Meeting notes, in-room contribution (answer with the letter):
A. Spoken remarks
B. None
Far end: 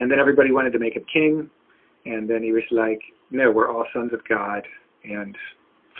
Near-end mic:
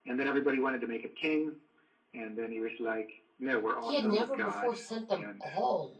A